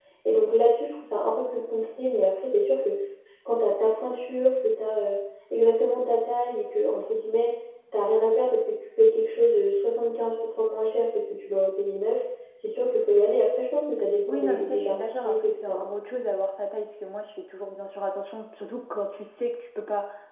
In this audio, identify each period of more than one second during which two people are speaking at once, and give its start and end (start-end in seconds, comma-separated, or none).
14.3-15.9